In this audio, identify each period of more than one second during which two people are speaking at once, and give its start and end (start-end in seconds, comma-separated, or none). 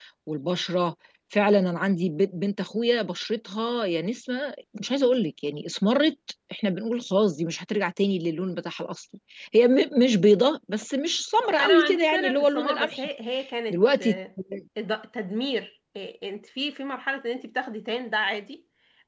11.6-13.1